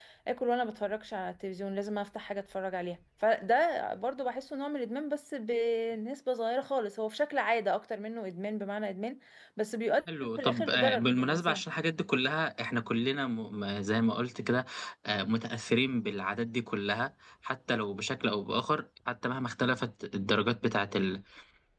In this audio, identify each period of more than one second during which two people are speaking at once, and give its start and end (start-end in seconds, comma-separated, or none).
10.4-11.6